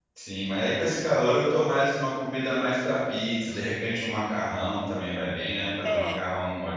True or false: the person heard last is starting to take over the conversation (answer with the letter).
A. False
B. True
A